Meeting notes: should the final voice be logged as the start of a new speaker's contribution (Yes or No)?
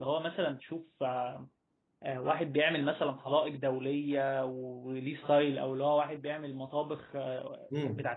Yes